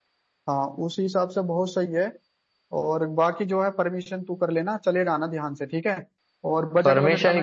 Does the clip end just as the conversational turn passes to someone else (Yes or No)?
Yes